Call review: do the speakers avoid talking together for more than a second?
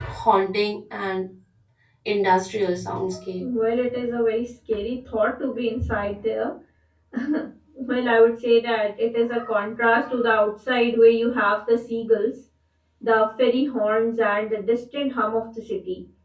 Yes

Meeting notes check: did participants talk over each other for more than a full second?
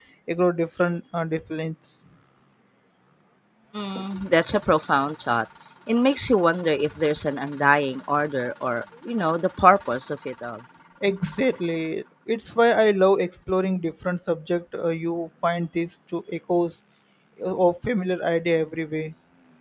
No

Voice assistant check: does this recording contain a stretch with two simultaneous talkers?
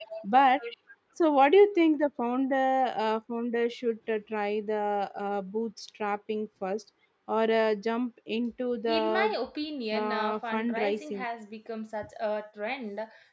Yes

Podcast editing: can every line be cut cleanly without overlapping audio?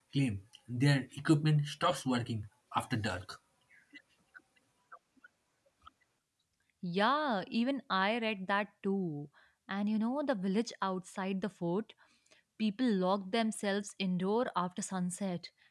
Yes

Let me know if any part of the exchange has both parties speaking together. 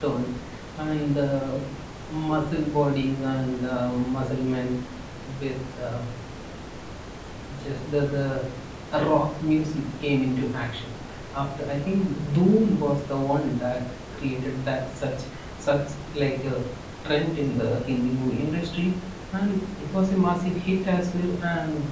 No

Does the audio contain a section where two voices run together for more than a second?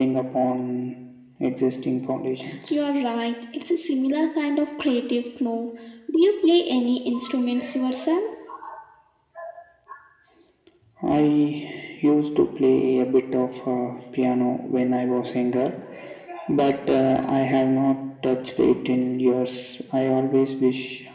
No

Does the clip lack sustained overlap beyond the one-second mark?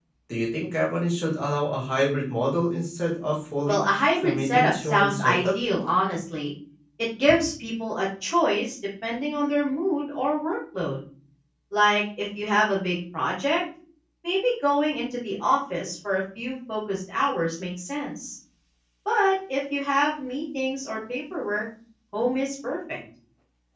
No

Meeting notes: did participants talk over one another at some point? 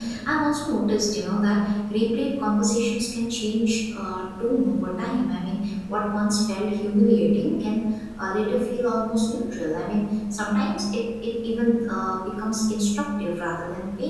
No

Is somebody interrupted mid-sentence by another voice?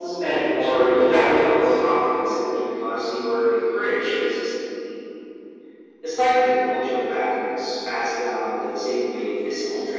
Yes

